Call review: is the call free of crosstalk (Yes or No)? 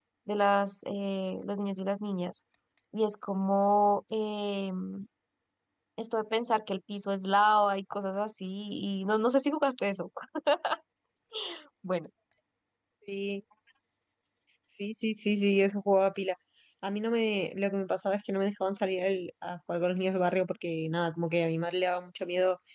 Yes